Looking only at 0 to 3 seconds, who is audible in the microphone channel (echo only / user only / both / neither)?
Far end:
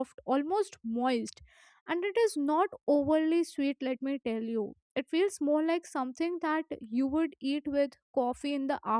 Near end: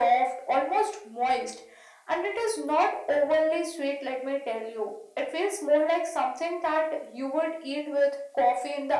echo only